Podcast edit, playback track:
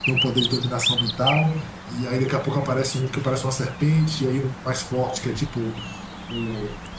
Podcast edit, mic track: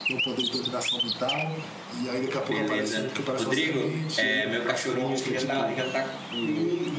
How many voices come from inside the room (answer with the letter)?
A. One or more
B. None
A